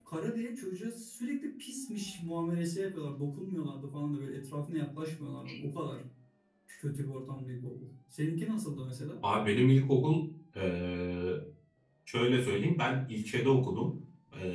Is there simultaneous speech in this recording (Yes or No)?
No